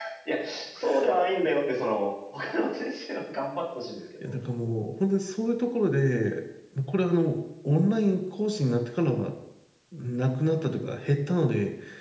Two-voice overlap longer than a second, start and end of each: none

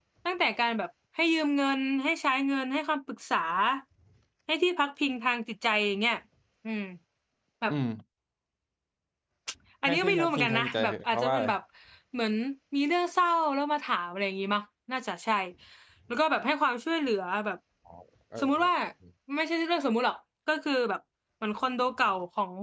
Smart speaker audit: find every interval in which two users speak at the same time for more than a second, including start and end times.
9.8-11.5

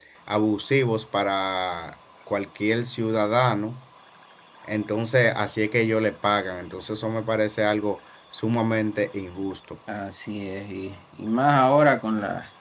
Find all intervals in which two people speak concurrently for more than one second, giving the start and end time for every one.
none

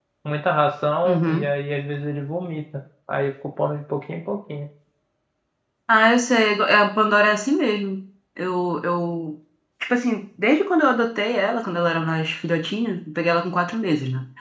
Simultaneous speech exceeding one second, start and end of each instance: none

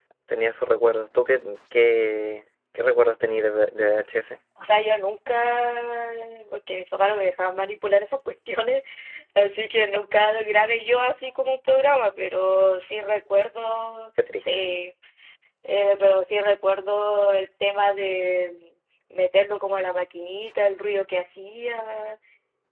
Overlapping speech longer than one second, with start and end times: none

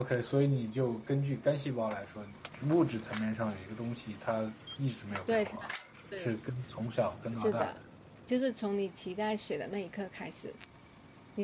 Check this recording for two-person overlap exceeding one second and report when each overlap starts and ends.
none

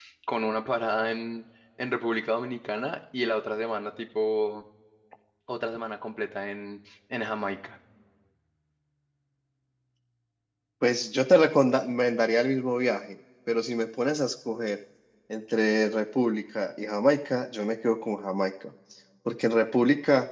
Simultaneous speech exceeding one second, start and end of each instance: none

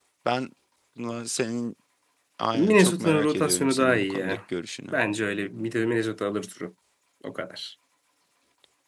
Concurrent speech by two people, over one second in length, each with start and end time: 2.5-4.4

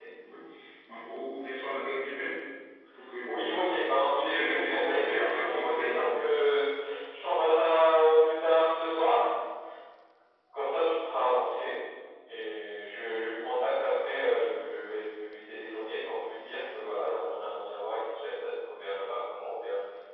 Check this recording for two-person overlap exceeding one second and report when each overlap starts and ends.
4.1-6.0

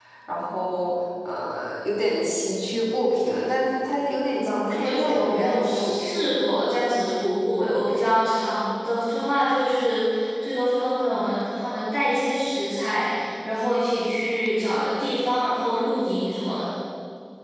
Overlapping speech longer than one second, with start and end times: 4.4-6.3

